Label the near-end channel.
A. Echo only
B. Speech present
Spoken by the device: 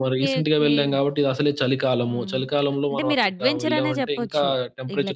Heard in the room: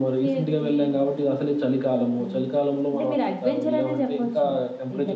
A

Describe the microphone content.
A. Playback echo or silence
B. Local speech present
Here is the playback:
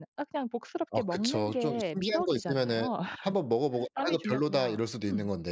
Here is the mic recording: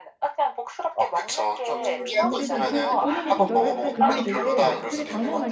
B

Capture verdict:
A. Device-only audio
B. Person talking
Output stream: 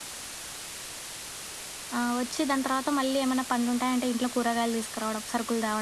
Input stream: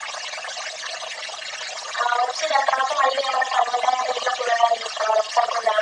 A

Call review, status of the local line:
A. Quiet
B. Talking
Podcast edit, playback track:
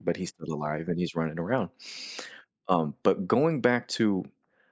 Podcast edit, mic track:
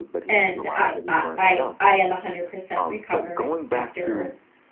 B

